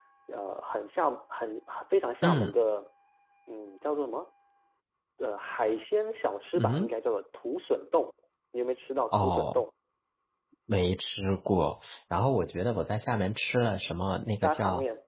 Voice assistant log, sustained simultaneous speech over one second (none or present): none